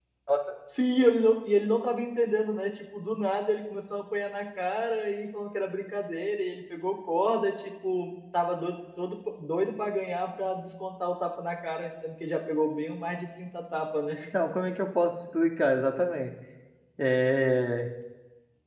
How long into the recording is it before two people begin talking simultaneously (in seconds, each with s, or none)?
none